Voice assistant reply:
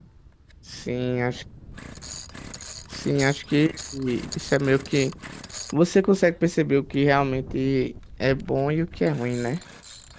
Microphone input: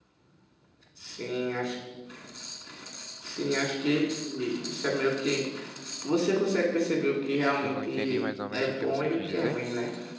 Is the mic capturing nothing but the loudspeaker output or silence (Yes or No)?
No